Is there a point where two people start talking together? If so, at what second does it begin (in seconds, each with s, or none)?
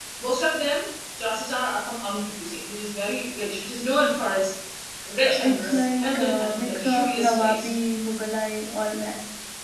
5.3 s